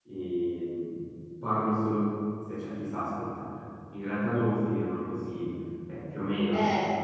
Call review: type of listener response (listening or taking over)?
listening